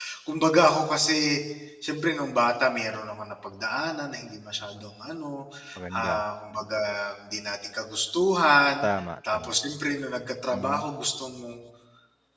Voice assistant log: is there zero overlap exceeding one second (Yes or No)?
Yes